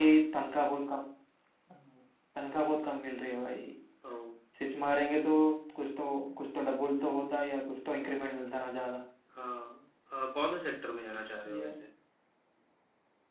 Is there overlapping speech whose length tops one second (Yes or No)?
No